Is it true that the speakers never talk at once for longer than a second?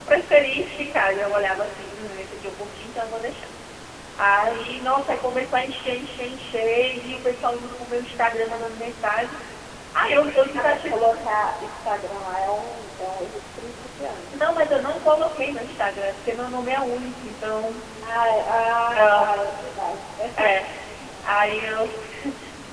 Yes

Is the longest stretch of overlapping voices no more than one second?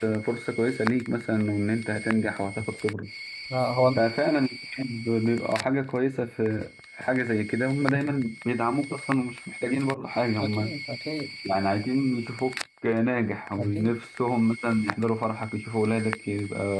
Yes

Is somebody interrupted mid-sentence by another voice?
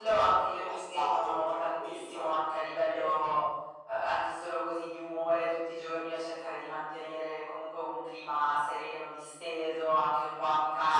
Yes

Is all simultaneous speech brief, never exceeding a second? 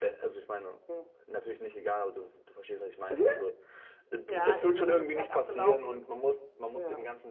No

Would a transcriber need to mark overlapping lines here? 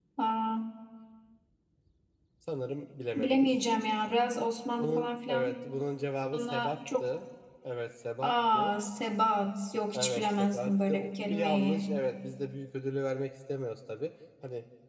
Yes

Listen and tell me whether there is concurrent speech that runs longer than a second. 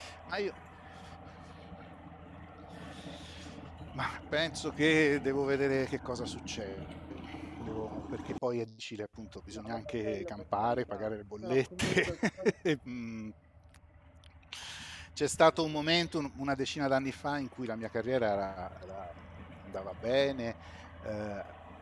Yes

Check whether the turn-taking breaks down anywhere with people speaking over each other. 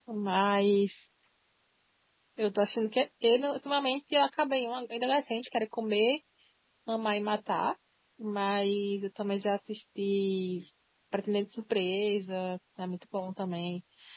No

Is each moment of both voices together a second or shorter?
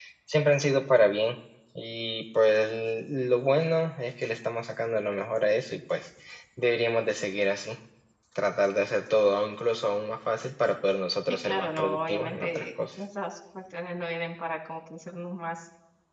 No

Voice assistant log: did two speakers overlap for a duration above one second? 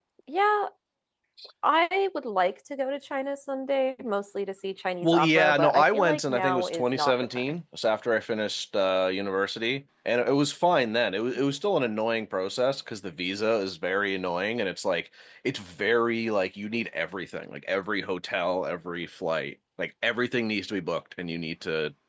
Yes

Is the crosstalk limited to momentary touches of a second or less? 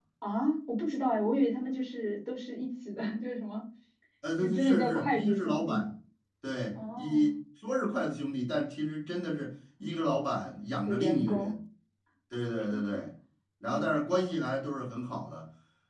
No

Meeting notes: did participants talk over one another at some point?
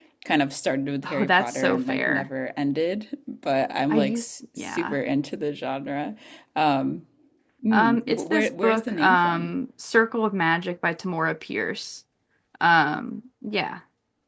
Yes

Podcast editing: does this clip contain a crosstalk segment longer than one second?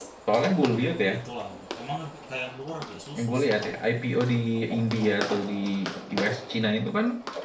No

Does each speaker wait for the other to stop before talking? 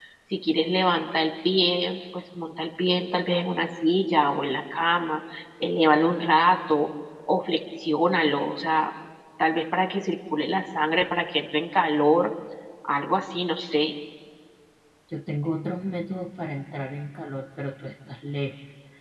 Yes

